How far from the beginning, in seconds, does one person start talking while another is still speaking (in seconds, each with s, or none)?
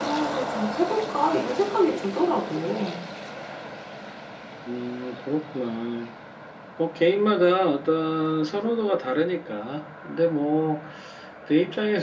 none